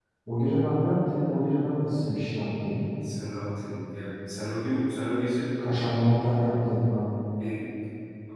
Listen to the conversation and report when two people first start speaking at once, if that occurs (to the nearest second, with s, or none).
none